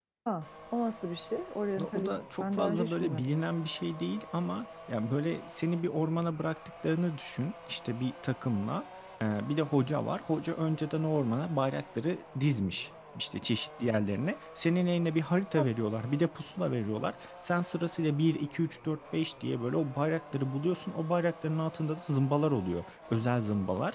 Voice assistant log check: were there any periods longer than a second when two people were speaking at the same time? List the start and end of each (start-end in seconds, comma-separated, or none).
1.8-3.3